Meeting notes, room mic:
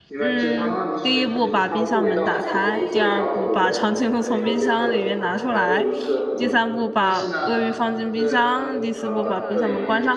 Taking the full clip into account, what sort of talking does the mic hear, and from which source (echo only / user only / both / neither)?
both